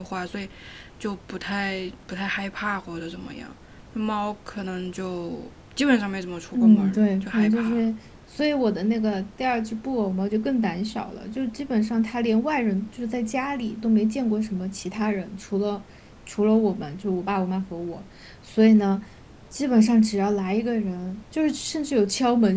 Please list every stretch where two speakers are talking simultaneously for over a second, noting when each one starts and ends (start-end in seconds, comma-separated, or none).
6.5-7.8